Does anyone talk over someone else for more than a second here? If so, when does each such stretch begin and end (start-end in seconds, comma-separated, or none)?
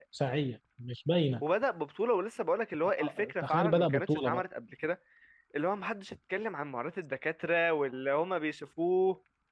2.9-4.4